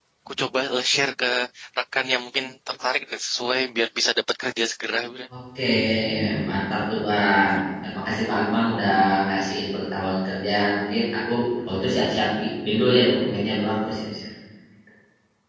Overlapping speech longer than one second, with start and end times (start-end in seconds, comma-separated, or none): none